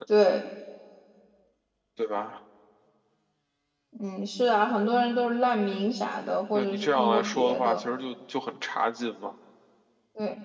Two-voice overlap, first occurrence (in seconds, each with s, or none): 6.5 s